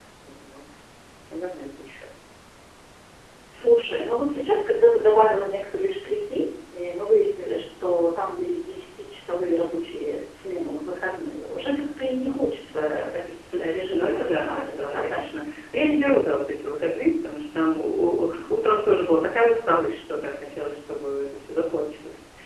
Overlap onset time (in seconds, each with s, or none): 13.9 s